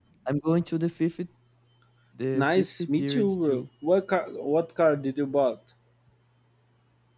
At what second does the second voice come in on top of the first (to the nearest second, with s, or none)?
2 s